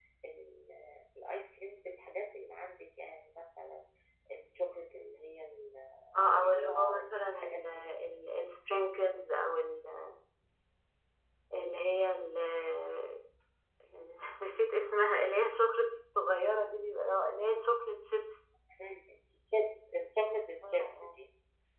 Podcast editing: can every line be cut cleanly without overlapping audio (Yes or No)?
No